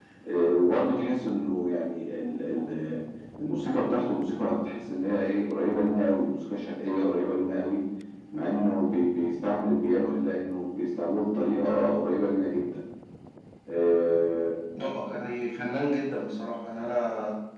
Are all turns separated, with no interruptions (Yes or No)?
Yes